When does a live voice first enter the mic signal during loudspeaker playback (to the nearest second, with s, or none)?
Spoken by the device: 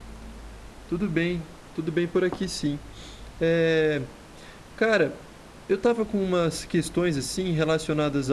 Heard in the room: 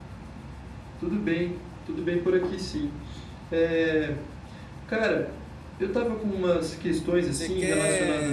7 s